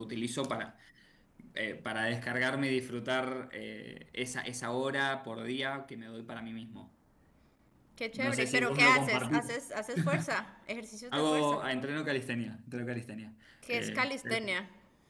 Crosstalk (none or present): present